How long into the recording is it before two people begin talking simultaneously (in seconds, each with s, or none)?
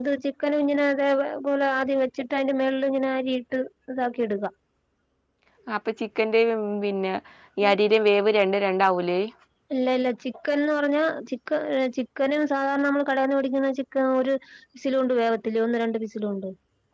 none